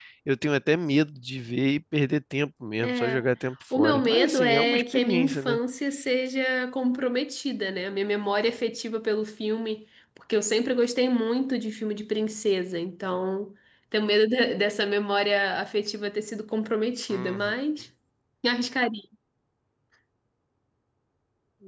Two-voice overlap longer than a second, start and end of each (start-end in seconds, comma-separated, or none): 3.8-5.6